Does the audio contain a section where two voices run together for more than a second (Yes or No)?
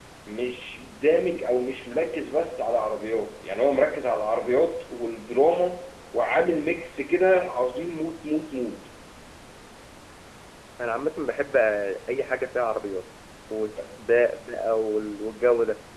No